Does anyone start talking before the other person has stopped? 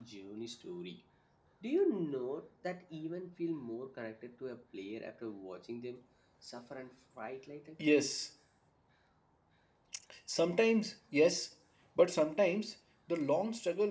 No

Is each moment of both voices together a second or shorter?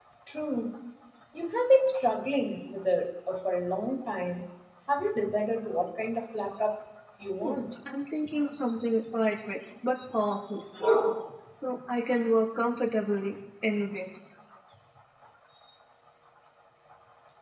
Yes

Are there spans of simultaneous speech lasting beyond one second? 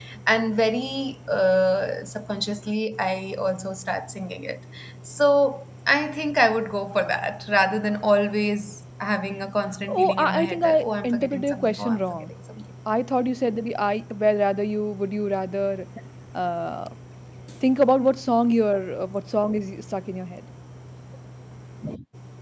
Yes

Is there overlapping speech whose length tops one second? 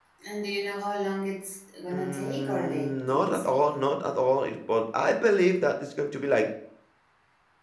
Yes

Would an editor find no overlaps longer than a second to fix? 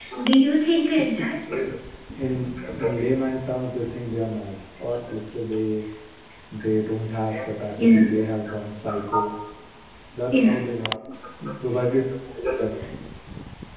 Yes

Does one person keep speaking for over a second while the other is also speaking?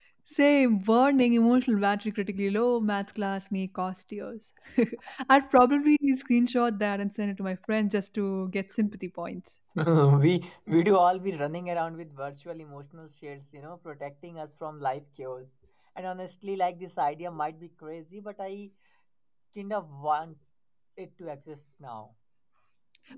No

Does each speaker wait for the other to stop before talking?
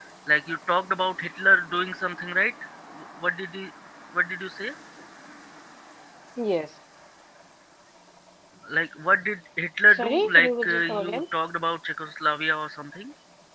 No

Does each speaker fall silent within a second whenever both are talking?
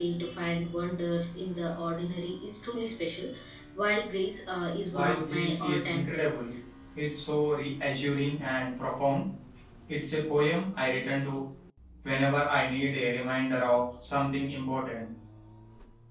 No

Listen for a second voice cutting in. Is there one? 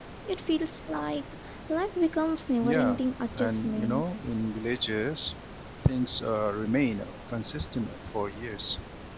Yes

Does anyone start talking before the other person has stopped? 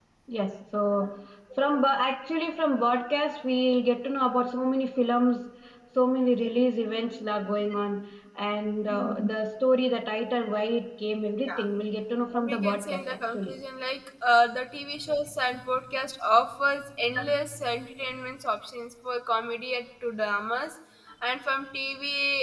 Yes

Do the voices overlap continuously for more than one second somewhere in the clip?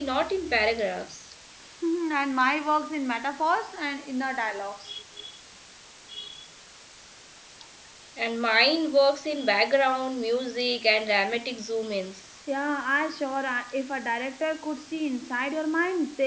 No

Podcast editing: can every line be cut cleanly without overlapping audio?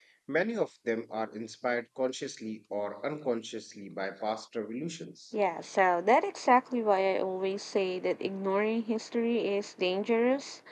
Yes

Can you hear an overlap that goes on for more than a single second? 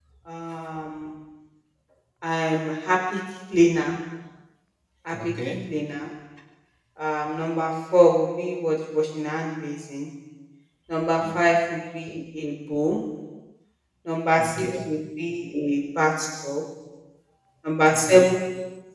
No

